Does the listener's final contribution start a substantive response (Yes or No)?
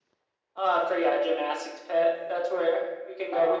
No